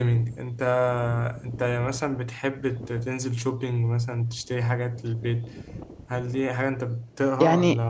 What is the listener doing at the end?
taking over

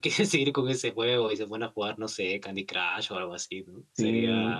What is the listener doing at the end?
taking over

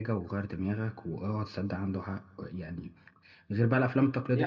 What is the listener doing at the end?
listening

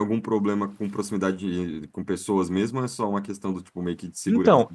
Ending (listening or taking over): taking over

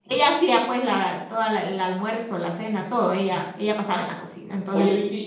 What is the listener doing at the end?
taking over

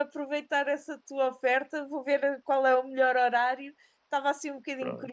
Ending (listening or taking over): listening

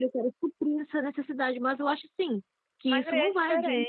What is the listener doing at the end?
taking over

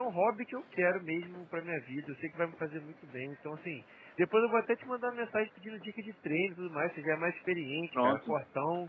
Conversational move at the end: listening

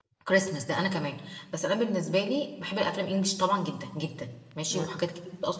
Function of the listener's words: listening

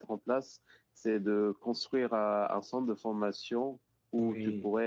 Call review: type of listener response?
listening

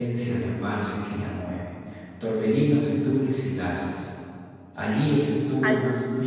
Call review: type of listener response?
listening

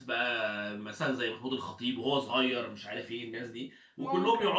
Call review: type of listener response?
listening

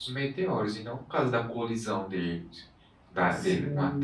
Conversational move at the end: taking over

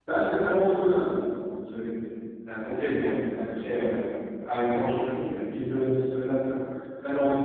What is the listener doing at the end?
listening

